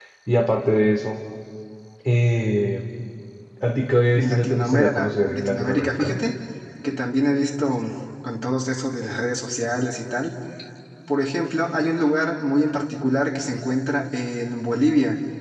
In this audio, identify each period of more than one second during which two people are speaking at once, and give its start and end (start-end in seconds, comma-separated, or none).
4.2-6.2